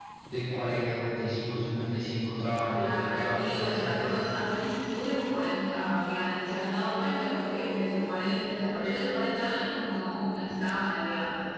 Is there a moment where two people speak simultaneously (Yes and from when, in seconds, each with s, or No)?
Yes, from 2.7 s